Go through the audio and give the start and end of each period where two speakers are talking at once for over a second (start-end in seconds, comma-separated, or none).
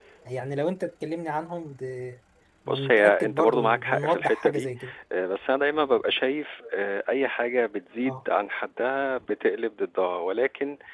2.7-4.7